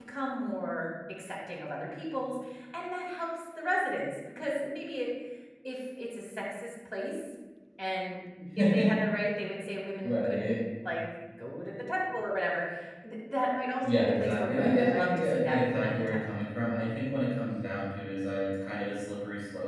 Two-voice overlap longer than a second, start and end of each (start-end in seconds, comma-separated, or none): 13.8-16.4